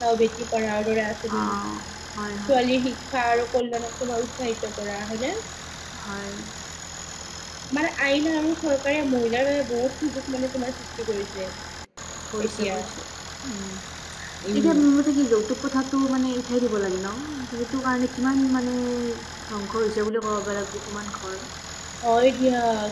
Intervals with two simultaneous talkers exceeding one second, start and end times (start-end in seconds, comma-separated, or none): none